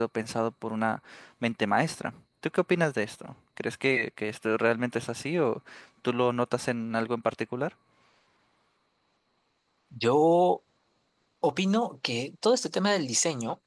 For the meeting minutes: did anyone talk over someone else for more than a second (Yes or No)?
No